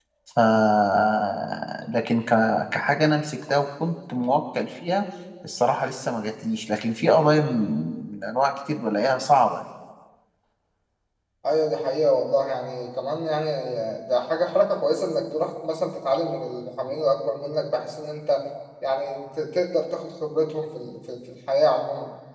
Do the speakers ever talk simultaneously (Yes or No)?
No